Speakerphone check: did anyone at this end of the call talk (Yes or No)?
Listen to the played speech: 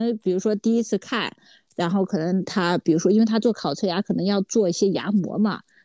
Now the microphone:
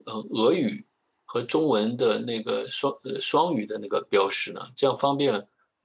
Yes